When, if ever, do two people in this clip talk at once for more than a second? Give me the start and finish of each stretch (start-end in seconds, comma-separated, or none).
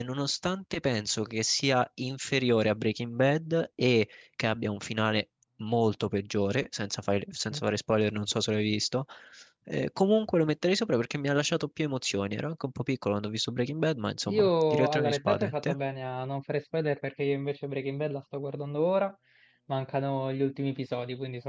14.3-15.8